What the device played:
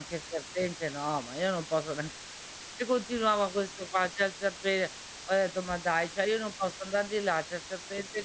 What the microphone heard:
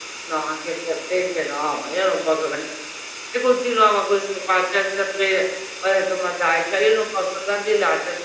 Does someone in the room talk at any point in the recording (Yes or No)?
No